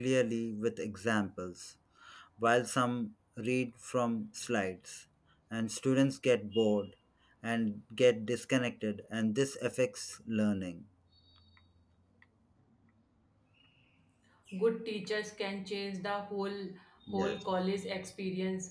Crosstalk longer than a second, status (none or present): none